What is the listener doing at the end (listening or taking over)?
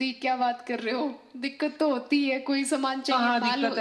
taking over